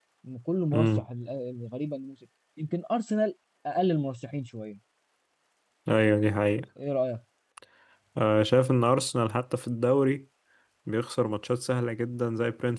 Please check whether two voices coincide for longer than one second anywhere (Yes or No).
No